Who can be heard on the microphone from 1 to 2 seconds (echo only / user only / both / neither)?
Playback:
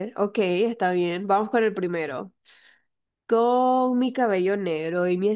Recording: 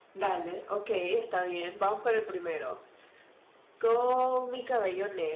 echo only